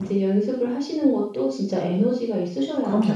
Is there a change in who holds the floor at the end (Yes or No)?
Yes